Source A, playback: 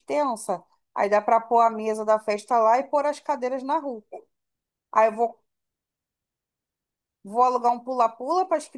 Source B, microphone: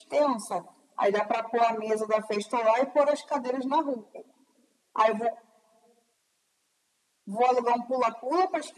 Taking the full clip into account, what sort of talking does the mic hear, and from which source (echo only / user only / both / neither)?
echo only